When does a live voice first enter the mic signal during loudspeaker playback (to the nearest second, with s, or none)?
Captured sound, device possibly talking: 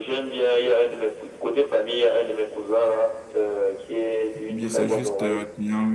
4 s